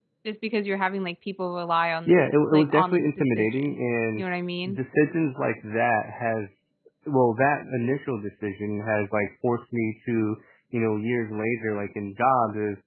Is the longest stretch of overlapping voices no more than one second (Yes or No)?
No